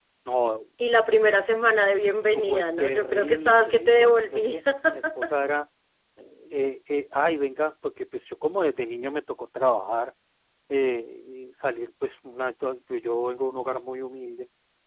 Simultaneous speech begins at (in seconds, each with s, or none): 2.3 s